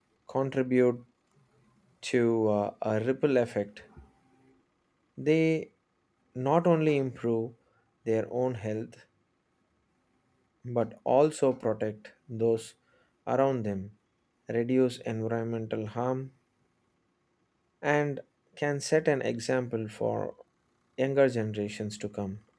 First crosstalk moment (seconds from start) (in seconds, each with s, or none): none